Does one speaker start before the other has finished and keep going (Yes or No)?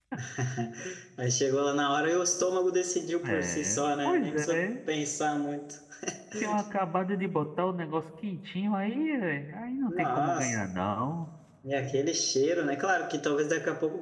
Yes